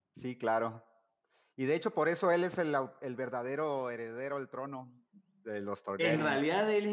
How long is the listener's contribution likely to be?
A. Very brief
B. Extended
B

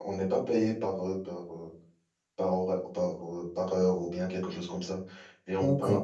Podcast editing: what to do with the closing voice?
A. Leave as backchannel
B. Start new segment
A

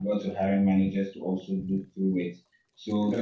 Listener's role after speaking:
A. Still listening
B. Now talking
A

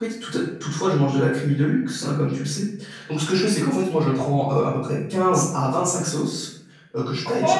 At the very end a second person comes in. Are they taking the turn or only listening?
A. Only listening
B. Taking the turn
B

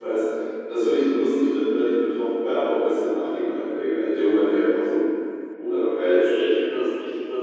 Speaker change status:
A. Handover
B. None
A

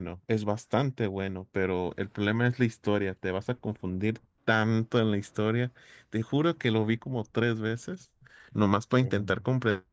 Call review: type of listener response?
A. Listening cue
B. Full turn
A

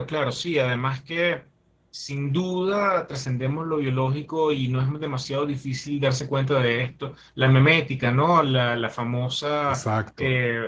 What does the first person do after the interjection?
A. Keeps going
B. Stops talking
A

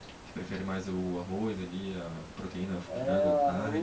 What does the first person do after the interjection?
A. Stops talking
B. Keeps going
A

